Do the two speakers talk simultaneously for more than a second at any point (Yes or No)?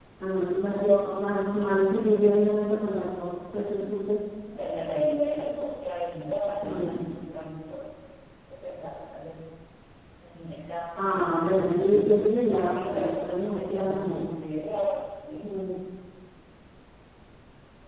Yes